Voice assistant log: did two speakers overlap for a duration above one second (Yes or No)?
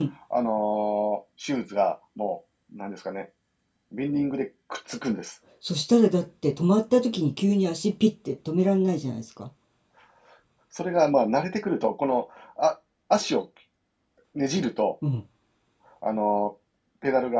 No